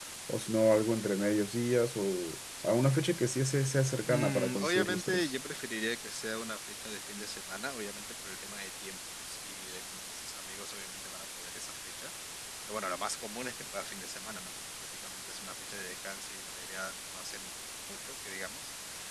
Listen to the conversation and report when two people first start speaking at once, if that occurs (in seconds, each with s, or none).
4.1 s